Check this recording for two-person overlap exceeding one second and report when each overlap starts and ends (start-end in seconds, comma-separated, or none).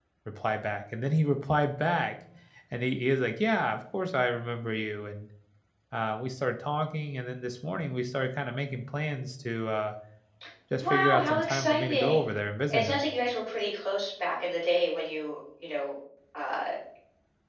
10.8-12.3